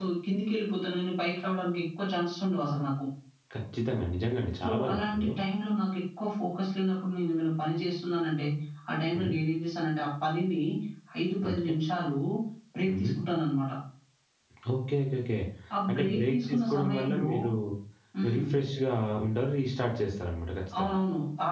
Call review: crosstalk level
present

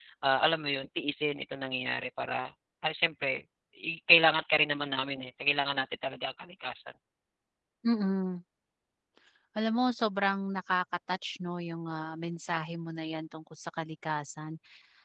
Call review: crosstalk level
none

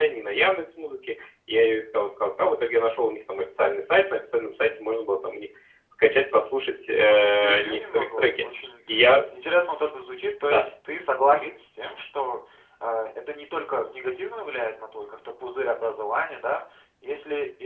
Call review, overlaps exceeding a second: present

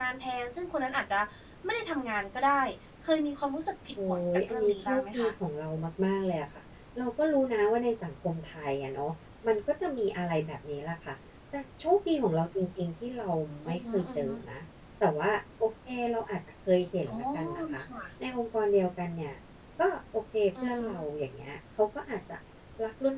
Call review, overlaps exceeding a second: present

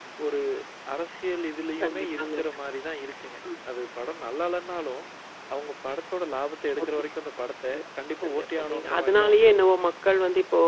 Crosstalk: present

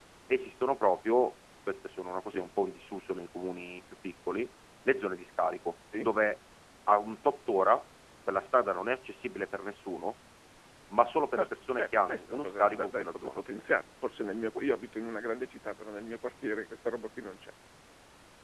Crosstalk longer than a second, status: present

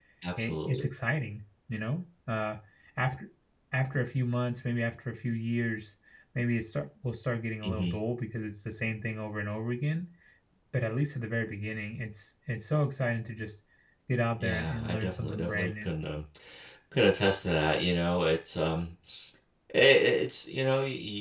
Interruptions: present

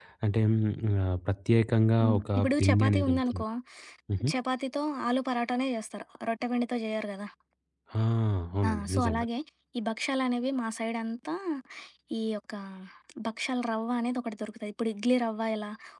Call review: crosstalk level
present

